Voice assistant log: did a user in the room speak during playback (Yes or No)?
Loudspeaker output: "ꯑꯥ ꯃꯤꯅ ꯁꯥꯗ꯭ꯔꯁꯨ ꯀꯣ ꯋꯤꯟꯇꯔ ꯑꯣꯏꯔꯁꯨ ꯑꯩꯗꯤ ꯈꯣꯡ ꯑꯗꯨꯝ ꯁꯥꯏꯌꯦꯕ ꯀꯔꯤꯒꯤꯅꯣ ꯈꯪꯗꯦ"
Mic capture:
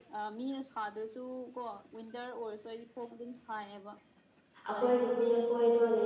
Yes